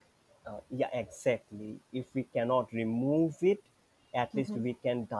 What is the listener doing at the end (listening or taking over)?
listening